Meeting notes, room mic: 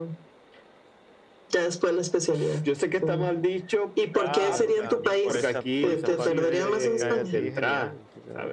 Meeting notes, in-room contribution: present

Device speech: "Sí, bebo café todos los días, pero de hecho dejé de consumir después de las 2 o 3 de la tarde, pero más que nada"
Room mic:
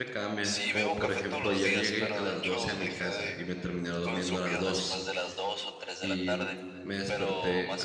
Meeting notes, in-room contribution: present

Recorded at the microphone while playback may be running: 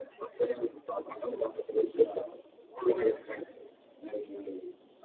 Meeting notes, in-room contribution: none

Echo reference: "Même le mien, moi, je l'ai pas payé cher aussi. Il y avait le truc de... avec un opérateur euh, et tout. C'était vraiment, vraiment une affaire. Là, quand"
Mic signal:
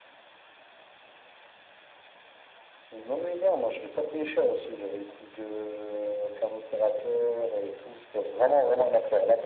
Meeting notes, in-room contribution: none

